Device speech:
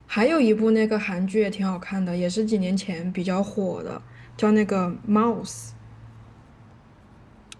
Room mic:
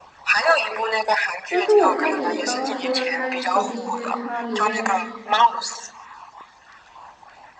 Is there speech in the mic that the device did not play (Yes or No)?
Yes